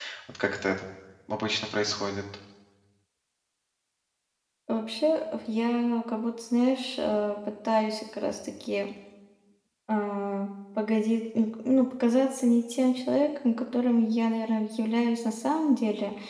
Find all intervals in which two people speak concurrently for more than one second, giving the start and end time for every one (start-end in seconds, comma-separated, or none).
none